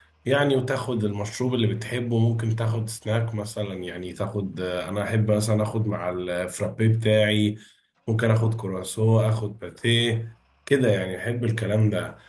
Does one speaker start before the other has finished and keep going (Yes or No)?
No